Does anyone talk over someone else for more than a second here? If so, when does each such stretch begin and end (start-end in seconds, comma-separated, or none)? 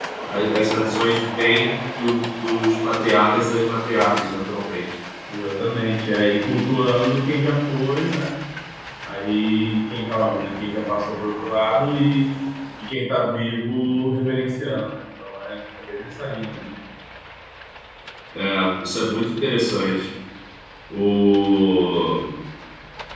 none